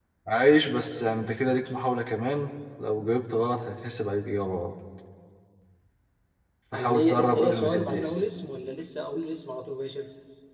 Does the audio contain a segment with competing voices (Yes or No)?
Yes